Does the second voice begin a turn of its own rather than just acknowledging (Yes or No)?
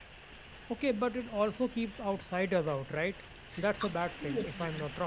Yes